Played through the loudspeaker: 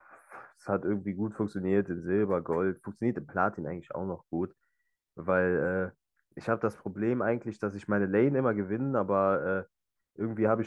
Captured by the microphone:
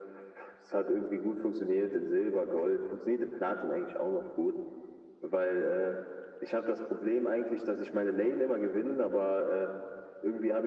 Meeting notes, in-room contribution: none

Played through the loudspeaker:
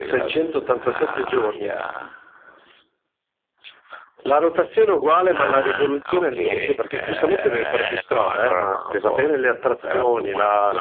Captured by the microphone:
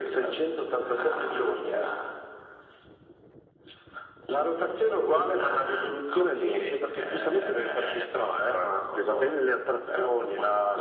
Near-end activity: none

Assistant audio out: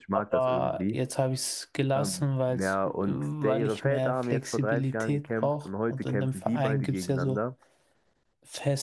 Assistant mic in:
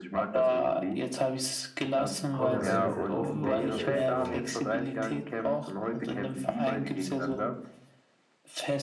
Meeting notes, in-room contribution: present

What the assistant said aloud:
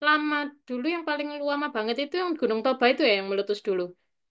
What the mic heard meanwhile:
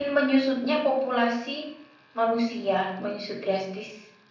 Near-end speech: present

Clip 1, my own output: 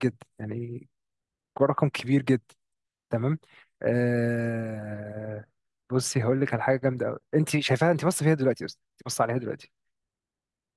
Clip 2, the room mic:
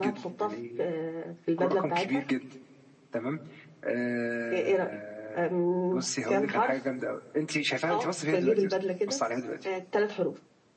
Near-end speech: present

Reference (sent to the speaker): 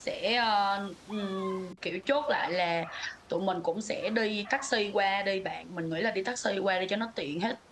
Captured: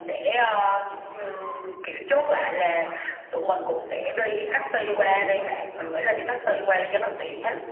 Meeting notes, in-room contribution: present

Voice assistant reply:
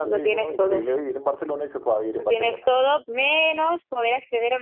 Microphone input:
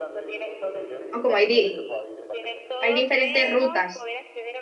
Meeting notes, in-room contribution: present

